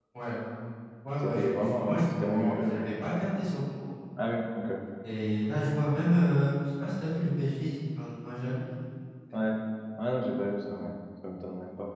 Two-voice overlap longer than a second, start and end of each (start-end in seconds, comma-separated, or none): 1.2-2.9